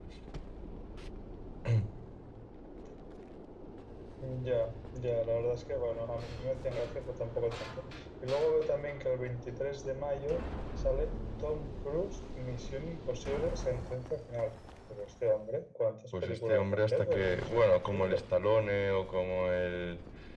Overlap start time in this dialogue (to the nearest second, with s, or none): 16 s